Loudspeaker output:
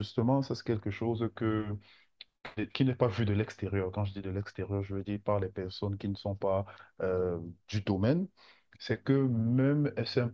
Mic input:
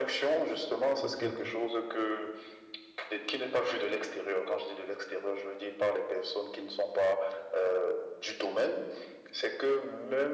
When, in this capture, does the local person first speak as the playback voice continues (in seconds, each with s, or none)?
1.0 s